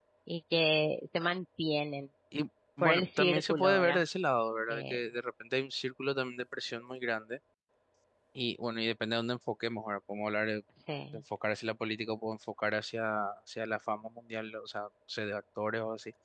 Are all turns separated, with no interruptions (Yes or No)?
No